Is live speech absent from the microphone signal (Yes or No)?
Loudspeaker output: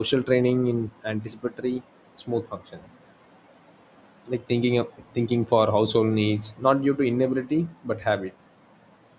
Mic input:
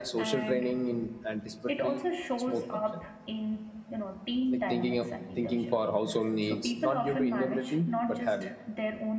No